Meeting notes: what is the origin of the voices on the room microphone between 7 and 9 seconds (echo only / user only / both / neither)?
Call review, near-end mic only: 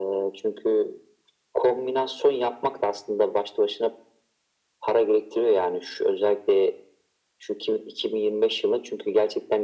echo only